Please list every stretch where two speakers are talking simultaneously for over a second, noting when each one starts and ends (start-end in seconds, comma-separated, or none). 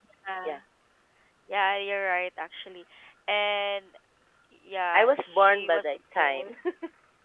4.9-6.5